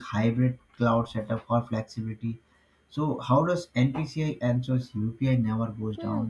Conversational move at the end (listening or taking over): taking over